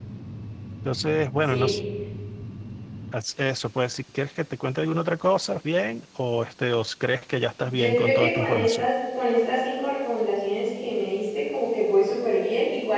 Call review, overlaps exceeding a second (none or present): present